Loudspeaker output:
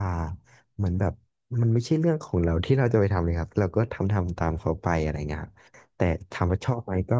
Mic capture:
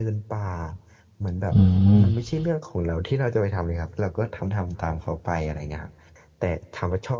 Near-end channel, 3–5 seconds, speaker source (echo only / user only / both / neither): echo only